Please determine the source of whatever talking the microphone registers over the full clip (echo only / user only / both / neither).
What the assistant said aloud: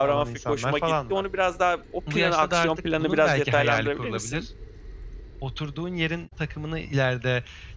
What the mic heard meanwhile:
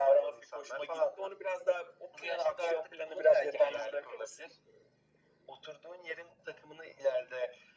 echo only